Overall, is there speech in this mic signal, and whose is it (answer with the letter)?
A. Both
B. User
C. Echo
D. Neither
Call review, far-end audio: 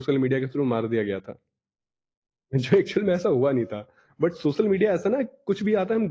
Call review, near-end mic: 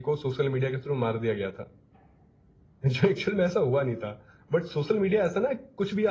C